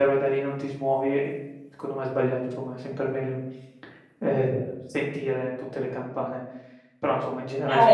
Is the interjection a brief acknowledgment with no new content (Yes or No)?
Yes